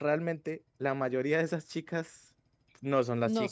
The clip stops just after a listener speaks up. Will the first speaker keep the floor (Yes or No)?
Yes